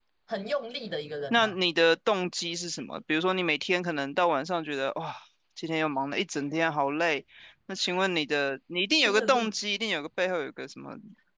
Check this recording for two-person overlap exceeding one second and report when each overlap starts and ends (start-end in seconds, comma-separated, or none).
none